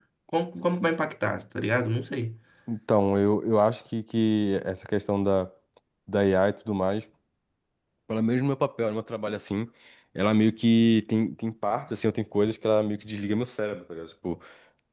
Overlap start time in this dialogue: none

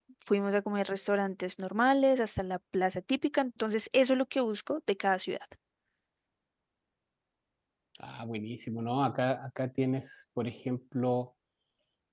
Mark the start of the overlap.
none

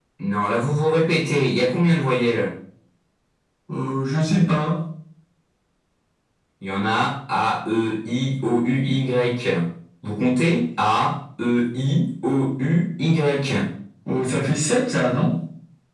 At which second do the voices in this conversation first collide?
none

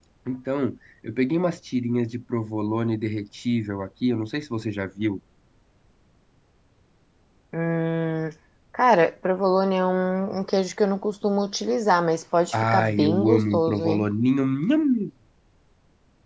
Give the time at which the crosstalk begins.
13 s

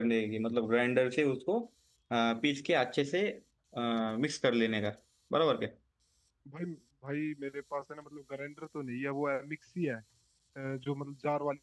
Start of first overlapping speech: none

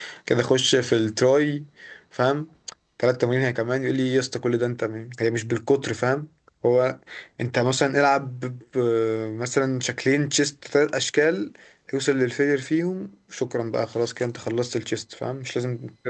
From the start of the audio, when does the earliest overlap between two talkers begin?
none

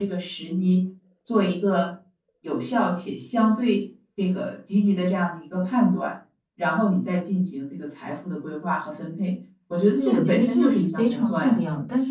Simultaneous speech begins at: 10 s

